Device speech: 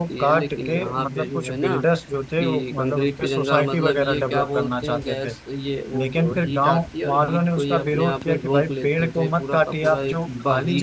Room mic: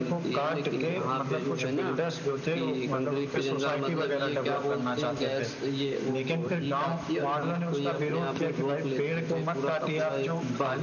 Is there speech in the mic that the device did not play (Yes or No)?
No